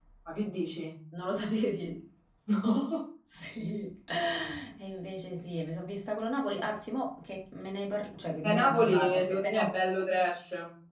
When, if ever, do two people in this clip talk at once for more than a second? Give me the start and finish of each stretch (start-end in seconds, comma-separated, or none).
8.4-9.7